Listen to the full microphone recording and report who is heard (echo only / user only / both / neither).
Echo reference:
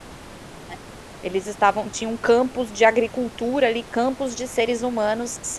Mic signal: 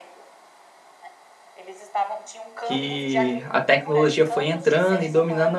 both